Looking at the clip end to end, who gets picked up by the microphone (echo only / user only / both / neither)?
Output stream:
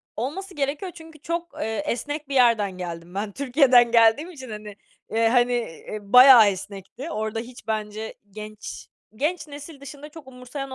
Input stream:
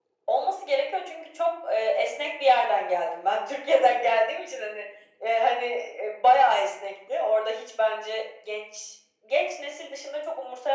echo only